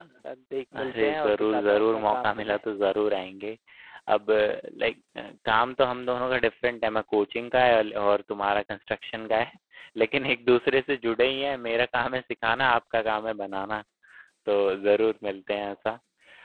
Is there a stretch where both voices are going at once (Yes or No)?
Yes